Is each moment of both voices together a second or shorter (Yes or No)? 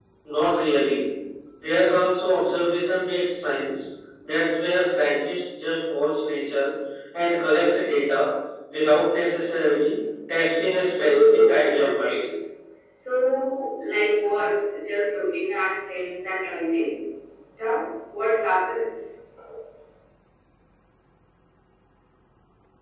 No